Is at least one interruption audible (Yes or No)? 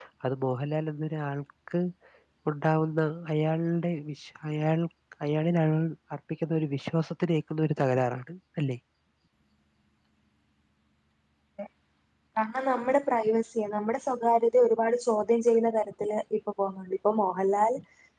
No